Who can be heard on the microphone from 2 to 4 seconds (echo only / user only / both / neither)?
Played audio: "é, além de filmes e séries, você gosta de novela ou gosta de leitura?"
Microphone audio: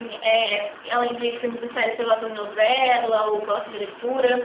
echo only